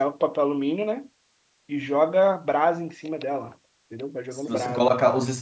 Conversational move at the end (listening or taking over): taking over